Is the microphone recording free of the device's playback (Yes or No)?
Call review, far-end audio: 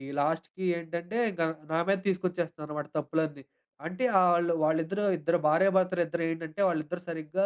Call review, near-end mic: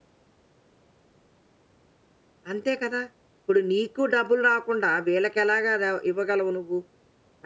Yes